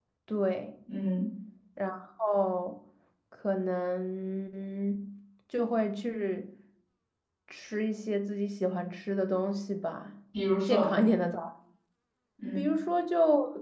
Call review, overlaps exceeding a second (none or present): none